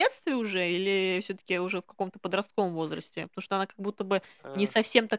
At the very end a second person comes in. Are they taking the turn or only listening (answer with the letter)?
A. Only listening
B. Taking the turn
A